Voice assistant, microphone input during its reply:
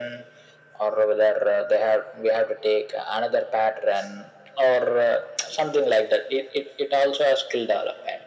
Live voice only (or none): none